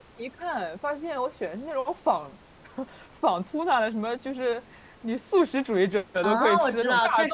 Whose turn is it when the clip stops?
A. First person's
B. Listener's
B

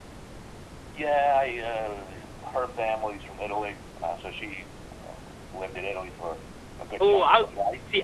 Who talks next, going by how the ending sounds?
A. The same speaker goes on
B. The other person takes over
B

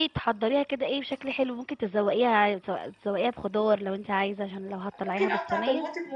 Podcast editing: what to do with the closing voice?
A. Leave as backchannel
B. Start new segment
B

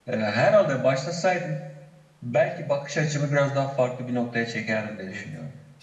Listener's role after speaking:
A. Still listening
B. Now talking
B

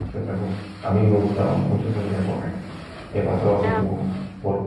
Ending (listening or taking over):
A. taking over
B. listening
B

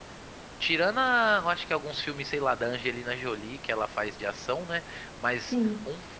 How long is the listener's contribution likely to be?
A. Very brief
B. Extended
A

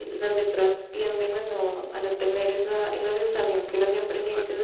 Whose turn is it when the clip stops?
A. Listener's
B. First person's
B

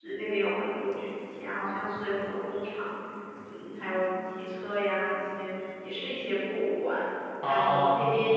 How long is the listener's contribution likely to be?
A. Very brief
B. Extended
A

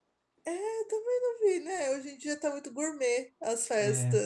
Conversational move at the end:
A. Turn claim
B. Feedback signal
B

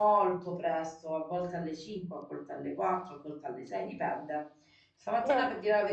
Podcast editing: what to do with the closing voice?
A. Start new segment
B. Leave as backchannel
B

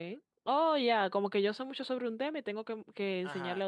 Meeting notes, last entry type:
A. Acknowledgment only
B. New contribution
B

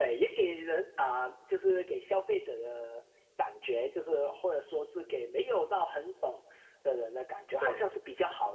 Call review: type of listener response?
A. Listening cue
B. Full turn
A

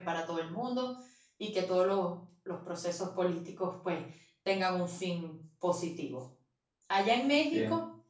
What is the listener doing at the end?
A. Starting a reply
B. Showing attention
B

